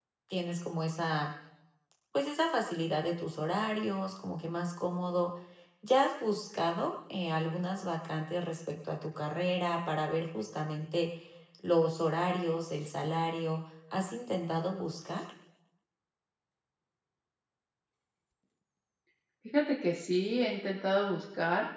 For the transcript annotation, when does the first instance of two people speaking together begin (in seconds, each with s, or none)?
none